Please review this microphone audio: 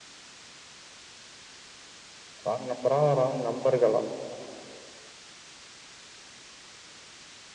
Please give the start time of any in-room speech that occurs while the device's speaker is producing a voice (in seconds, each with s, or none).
2.5 s